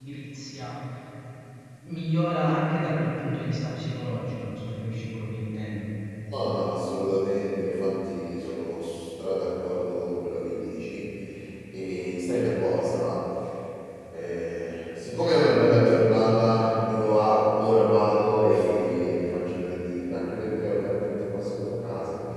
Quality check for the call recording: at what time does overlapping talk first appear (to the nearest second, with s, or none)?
none